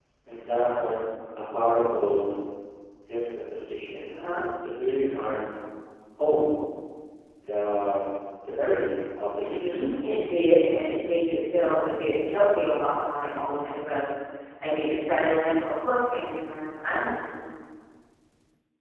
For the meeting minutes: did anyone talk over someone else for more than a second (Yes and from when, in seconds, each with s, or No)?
No